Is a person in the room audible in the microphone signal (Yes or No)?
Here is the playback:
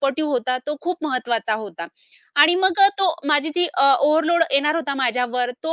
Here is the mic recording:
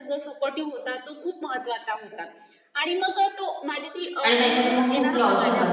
Yes